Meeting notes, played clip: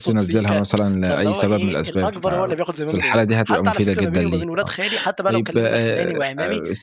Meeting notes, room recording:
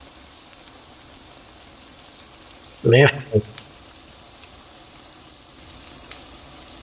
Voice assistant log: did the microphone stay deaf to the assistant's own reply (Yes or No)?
Yes